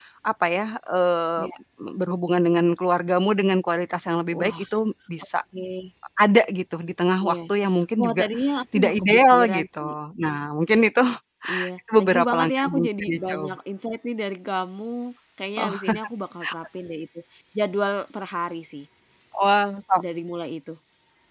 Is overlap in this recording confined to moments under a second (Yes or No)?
No